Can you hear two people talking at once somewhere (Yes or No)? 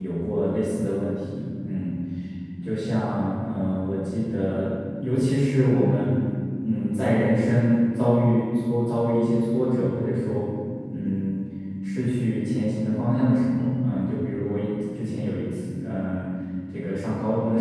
No